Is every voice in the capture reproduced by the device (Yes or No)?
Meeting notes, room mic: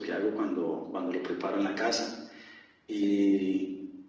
Yes